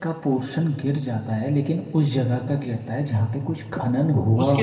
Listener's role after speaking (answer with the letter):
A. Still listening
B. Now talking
B